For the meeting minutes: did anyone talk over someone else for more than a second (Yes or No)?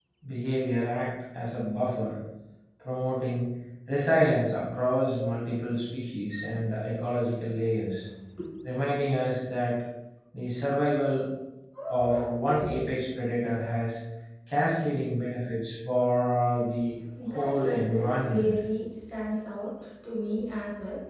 Yes